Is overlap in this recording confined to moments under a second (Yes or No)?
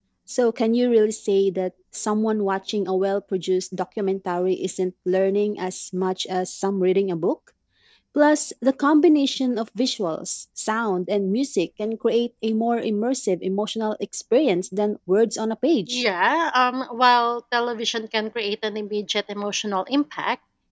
Yes